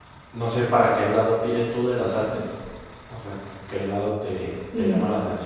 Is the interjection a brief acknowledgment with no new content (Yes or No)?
Yes